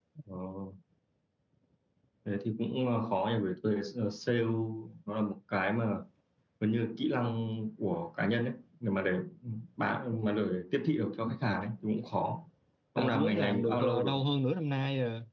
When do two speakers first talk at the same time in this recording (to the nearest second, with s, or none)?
13 s